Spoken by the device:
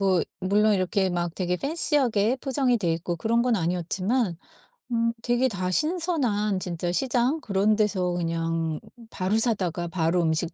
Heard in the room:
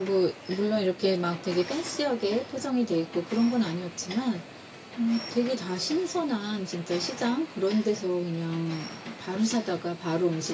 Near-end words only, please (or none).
none